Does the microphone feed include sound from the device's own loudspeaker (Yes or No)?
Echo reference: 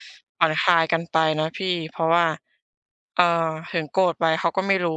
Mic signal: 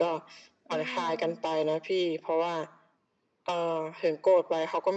Yes